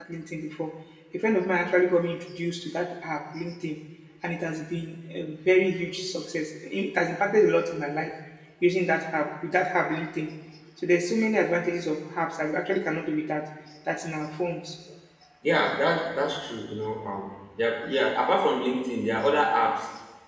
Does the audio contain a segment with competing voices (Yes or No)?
No